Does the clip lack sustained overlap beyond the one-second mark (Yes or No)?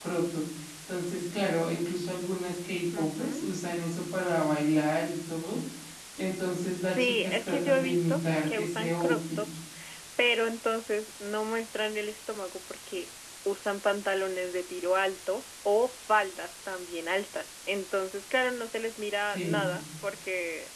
No